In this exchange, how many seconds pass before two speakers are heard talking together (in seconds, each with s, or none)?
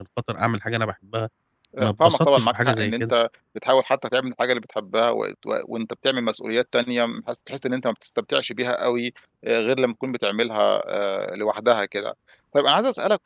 1.8 s